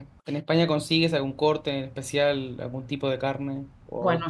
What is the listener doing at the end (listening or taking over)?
taking over